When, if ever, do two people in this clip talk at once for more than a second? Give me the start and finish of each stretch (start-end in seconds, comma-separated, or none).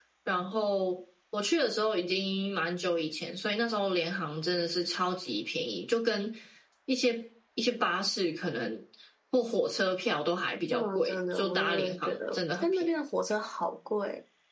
10.7-12.9